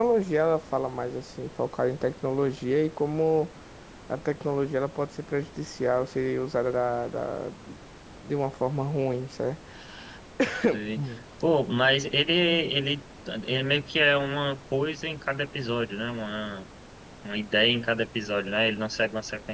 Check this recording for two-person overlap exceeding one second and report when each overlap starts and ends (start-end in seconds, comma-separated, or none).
none